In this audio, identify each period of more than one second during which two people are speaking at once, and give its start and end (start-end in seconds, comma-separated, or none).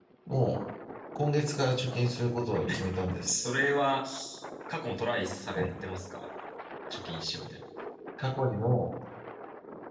none